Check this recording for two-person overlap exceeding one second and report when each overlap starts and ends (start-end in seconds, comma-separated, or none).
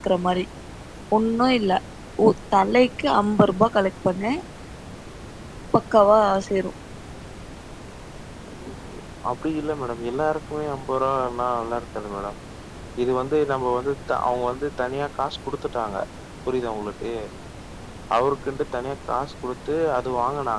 none